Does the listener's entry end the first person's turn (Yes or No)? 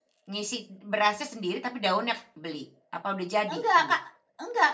Yes